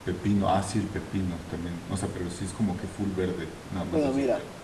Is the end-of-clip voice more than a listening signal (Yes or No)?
Yes